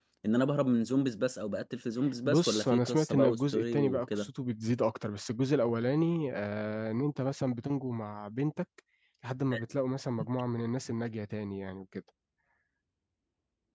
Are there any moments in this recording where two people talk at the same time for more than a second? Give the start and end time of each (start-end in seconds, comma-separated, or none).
2.2-4.3